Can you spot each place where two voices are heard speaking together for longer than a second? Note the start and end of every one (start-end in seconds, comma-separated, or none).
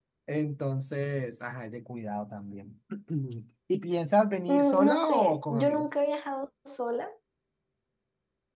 4.5-5.9